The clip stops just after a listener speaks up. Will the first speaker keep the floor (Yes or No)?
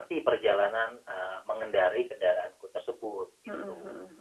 No